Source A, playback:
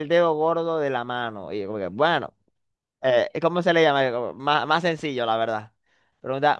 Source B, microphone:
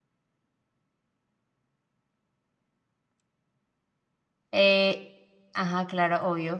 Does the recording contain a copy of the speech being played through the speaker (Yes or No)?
No